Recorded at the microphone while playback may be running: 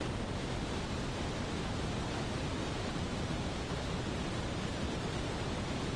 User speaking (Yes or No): No